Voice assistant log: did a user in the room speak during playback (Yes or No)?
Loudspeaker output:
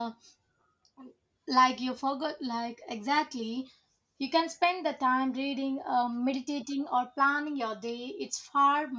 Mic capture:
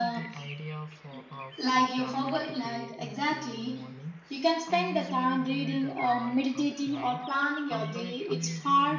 Yes